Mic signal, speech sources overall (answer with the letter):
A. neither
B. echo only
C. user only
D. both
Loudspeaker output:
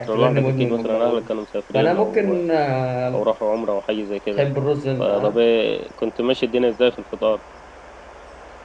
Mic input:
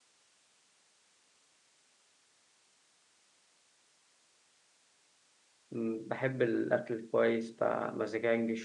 C